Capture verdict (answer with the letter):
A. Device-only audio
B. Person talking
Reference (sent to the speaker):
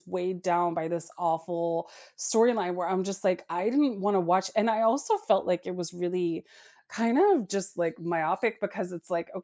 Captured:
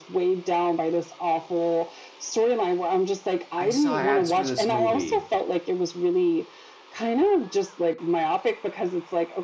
B